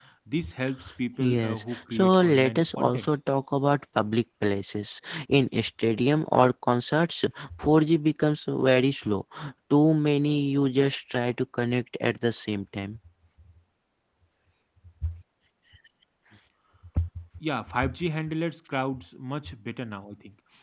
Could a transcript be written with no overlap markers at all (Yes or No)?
No